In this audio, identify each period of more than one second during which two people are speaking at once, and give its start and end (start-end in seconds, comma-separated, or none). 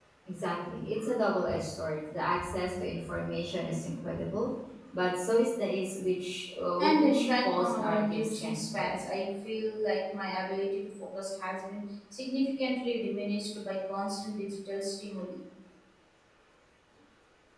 6.8-9.0